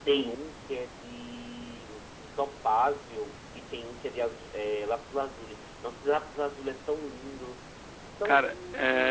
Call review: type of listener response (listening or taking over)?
taking over